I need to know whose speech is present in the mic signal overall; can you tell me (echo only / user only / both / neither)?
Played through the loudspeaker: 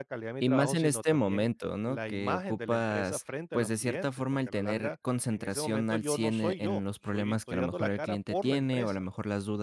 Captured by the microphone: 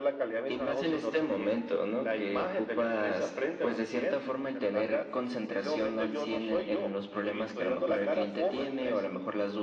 echo only